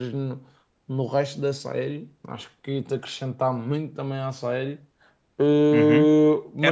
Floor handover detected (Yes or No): Yes